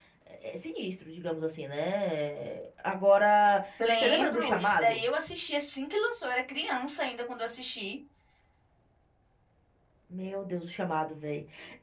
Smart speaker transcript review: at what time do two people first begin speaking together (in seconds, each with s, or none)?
3.8 s